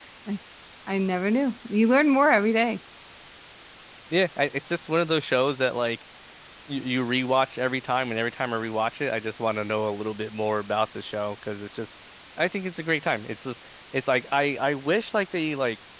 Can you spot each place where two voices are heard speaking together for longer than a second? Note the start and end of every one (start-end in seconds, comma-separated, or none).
none